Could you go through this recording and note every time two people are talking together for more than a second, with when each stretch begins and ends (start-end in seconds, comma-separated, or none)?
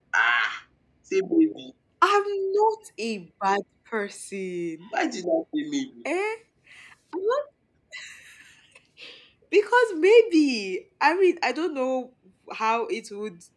none